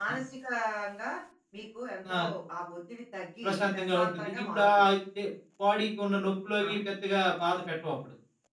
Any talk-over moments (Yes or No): Yes